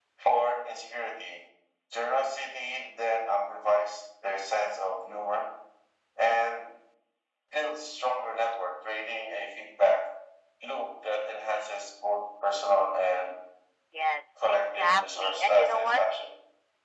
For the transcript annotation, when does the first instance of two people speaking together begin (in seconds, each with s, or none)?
14.5 s